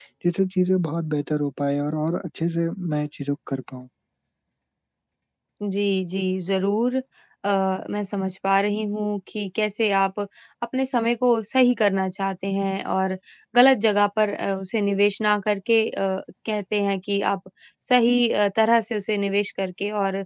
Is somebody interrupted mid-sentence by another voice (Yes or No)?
No